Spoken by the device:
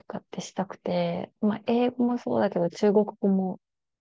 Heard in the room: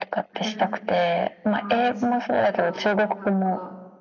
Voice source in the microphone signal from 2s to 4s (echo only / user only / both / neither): both